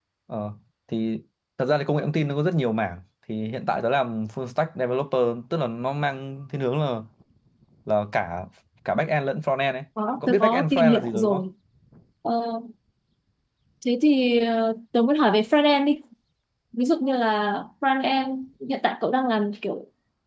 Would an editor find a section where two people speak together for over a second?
Yes, from 10.2 s

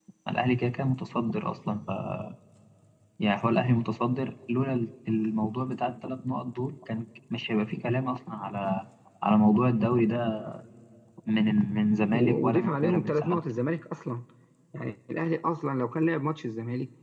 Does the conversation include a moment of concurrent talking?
Yes, from 12.1 s

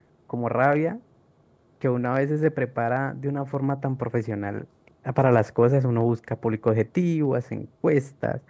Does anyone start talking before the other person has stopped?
No

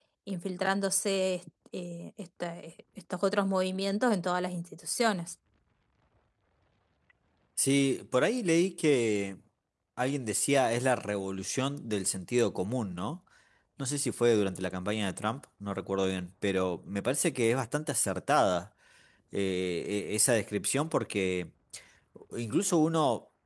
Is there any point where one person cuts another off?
No

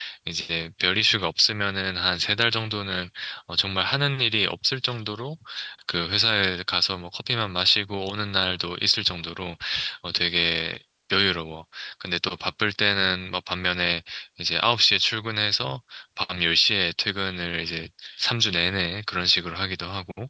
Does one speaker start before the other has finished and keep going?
No

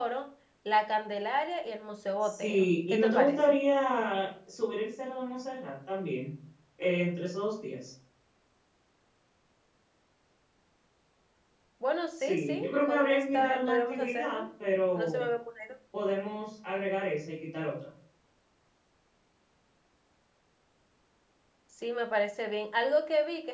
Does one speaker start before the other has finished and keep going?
Yes, from 2.2 s

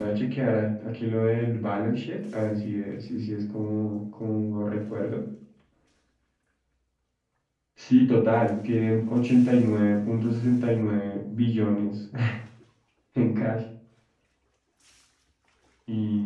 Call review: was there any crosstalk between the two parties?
No

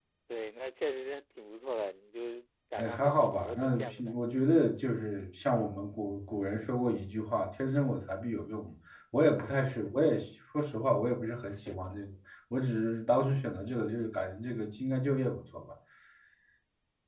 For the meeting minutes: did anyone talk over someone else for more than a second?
Yes, from 2.8 s

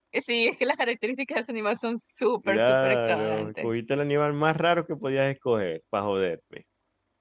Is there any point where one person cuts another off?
Yes, from 2.5 s

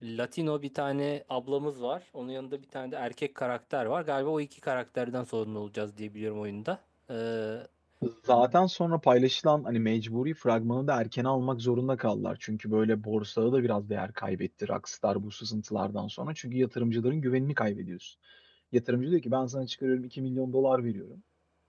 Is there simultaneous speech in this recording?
No

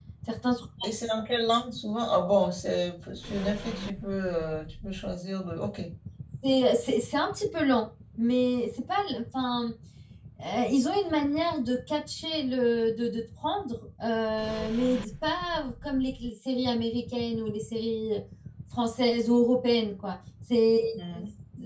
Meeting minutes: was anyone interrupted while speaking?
No

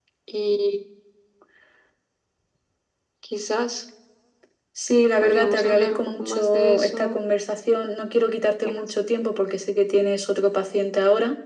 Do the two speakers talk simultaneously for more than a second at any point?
Yes, from 5.2 s

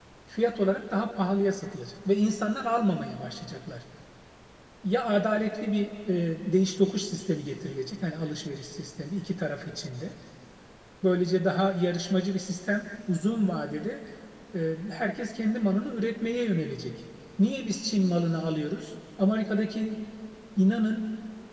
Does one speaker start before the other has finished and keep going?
No

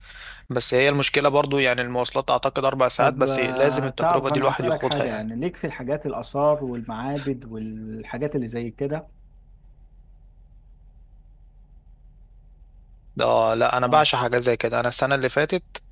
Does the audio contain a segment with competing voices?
Yes, from 3.0 s

